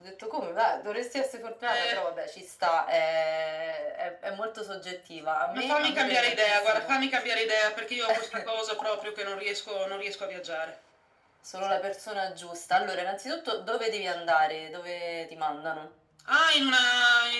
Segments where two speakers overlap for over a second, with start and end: 5.5-7.0

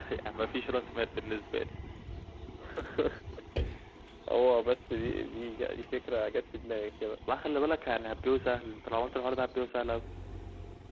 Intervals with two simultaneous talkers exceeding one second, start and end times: none

